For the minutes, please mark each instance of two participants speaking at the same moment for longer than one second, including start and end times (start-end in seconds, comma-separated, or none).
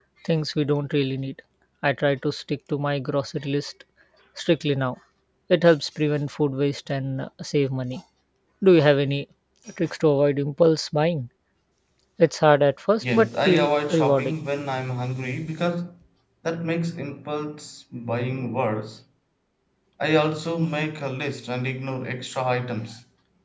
13.0-14.3